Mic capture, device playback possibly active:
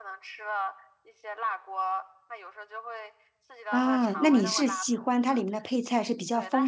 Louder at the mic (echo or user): user